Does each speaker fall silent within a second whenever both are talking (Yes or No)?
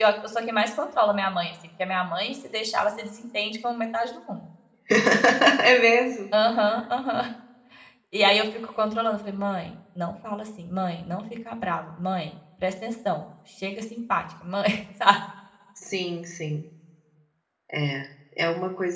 Yes